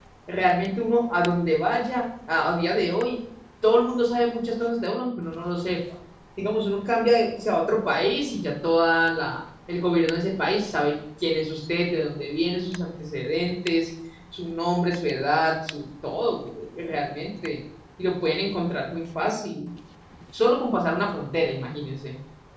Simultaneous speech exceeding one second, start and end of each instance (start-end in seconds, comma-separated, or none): none